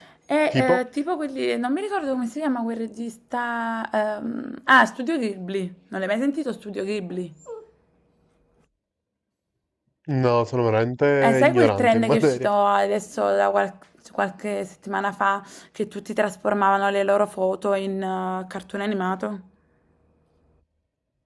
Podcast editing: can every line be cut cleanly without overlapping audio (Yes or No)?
No